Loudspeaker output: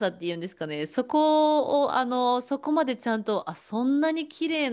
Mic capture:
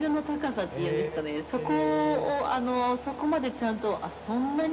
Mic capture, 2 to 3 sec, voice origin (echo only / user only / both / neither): both